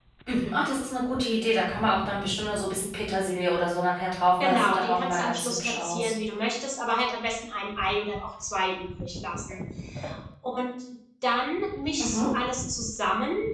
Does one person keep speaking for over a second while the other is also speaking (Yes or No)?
Yes